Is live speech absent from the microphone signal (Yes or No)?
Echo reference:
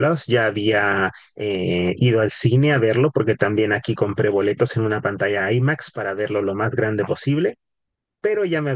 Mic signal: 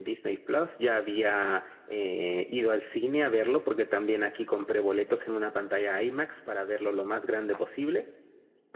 Yes